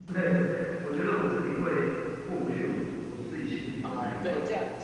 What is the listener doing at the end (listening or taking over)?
taking over